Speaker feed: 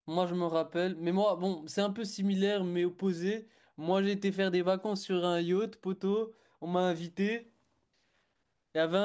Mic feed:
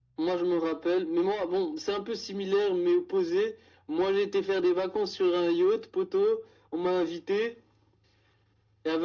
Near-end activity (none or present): none